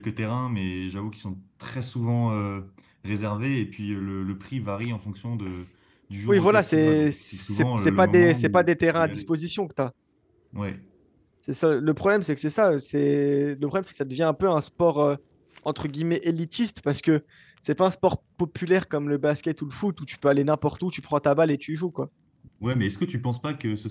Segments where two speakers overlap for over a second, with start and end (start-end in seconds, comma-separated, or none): 6.3-9.2